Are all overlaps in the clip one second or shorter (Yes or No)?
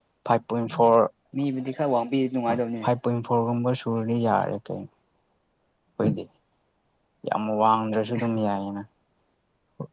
Yes